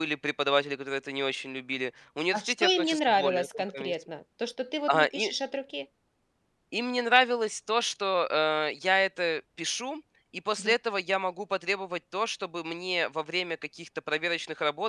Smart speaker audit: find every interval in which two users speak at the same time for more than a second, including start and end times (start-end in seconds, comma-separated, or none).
2.3-3.9